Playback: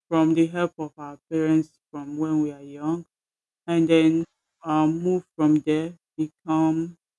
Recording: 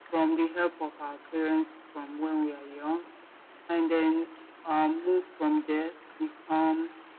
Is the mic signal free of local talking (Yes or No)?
Yes